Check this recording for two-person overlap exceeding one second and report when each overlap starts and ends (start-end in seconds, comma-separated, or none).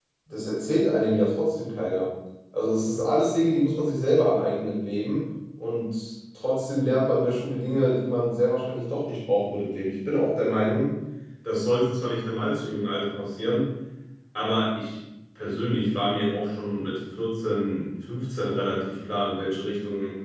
none